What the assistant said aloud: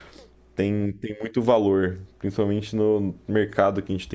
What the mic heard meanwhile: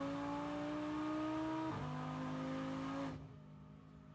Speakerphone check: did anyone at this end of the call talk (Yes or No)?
No